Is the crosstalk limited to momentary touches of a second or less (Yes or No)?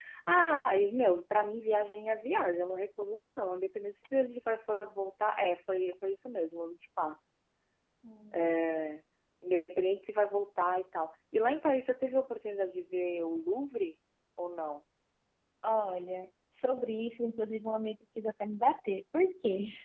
Yes